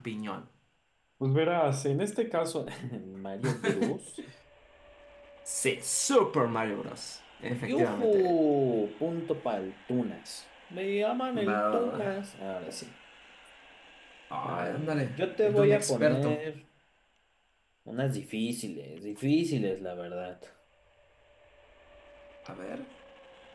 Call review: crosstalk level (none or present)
present